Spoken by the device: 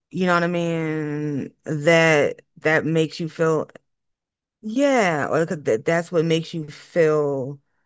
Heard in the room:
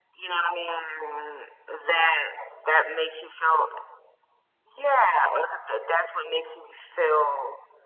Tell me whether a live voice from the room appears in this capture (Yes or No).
No